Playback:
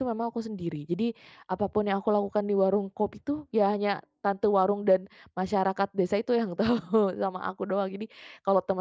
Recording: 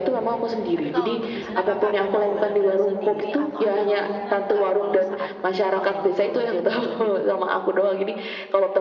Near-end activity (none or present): present